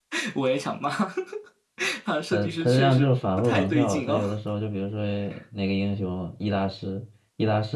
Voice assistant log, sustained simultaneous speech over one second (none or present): present